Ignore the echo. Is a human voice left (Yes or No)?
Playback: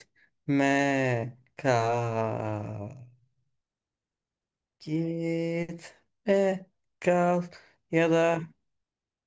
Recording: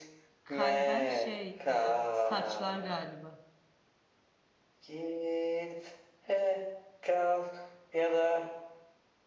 Yes